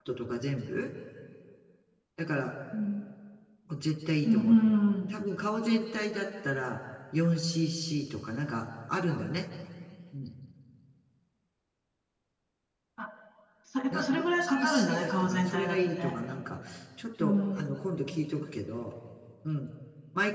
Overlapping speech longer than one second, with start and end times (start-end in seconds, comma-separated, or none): 13.9-16.2